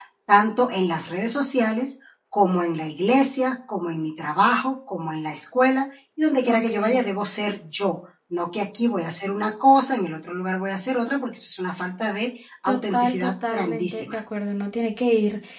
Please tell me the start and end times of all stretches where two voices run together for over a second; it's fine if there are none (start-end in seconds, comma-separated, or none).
12.7-14.2